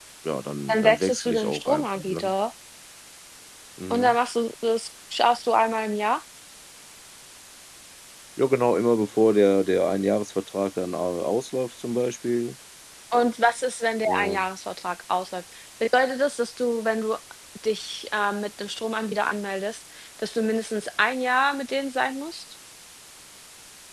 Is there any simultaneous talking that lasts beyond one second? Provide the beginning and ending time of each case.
0.7-2.2

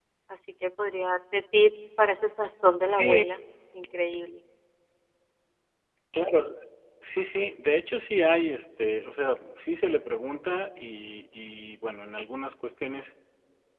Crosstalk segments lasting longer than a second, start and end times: none

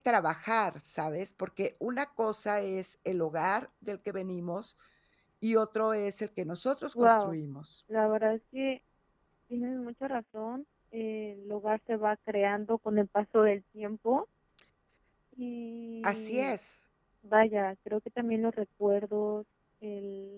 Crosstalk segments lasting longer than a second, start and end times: none

